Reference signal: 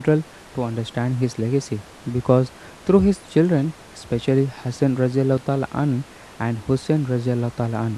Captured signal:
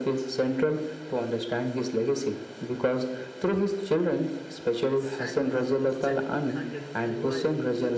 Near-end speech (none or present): present